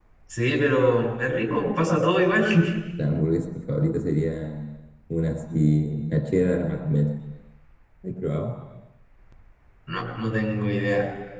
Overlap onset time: none

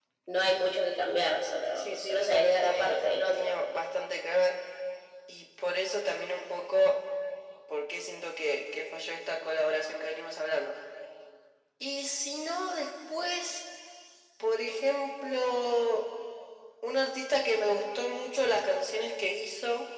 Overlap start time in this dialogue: 2 s

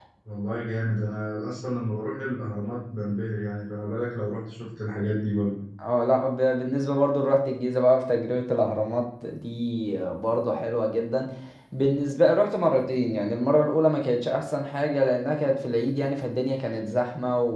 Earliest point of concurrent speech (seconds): none

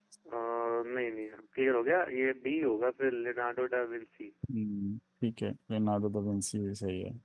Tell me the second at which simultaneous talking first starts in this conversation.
none

